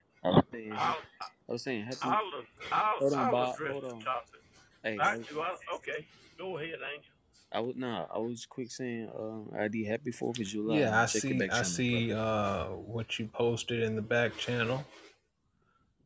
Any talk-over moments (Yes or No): Yes